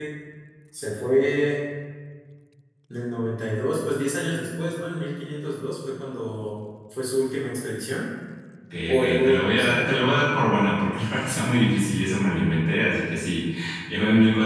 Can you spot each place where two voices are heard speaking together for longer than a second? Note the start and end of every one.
8.9-10.1

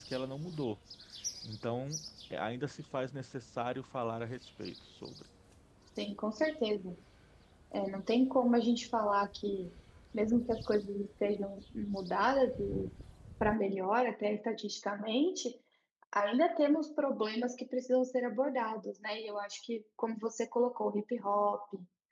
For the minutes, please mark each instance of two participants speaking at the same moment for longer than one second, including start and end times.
none

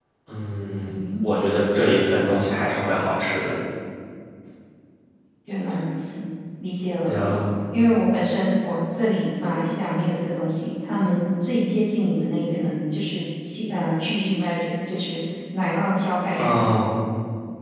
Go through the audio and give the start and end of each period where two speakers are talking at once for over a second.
none

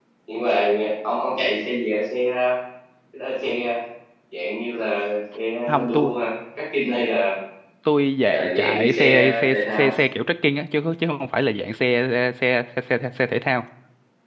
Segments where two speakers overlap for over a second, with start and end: 8.2-9.9

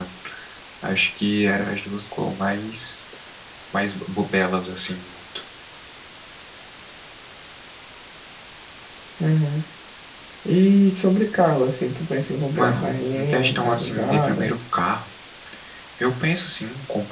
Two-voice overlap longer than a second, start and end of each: 12.5-14.5

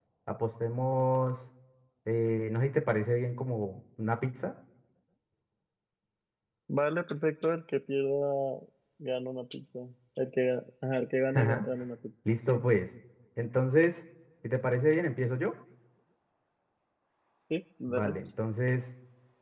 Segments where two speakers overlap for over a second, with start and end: none

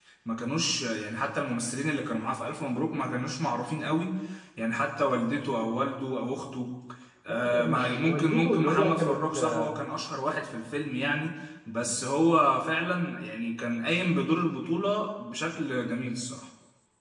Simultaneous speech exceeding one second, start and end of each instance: 7.3-9.7

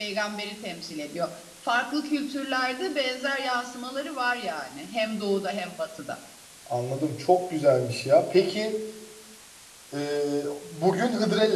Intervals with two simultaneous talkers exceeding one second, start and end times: none

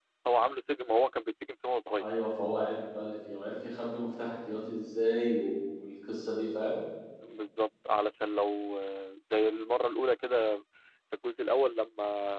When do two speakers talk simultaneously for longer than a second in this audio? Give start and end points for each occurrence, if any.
none

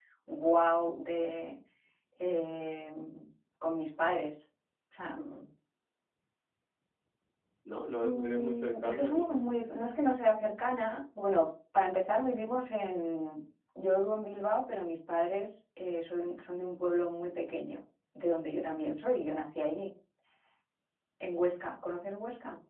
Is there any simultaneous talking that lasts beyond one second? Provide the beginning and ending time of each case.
8.0-9.4

